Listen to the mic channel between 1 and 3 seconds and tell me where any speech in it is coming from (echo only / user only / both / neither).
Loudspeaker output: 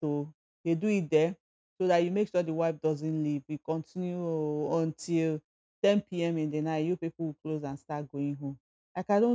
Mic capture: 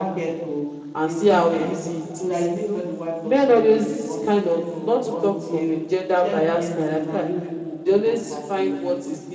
both